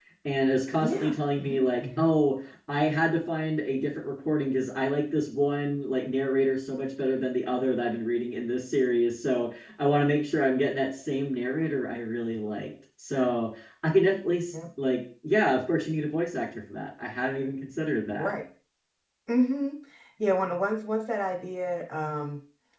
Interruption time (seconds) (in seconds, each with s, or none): 0.8 s